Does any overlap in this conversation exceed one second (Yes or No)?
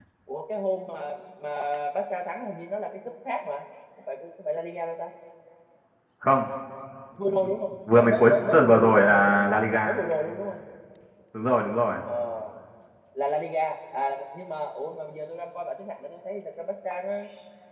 Yes